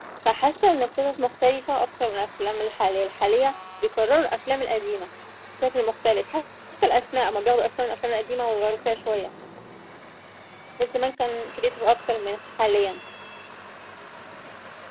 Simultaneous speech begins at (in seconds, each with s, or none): none